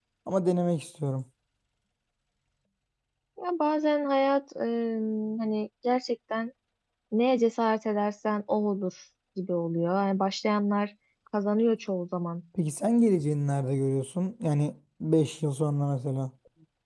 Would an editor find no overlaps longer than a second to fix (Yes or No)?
Yes